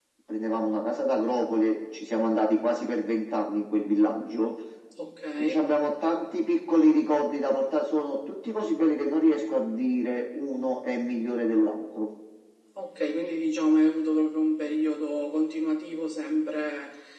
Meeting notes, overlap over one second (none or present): none